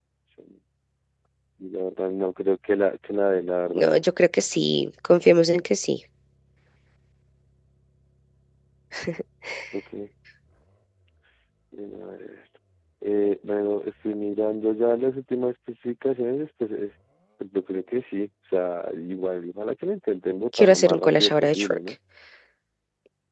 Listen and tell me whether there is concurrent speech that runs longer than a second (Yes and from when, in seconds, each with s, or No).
Yes, from 20.6 s